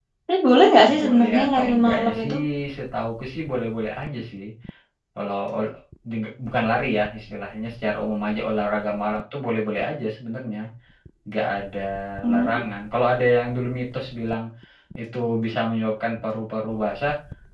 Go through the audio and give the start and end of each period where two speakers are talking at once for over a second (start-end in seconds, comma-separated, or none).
1.0-2.4